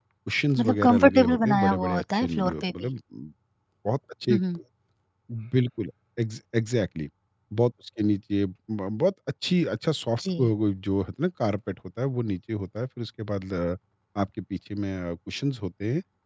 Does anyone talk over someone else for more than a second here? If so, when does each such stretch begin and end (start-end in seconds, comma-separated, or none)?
0.6-2.9